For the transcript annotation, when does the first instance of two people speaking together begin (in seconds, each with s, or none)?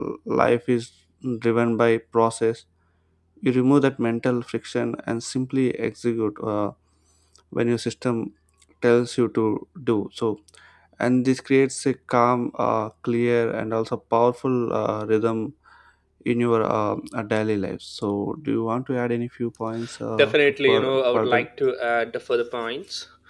20.2 s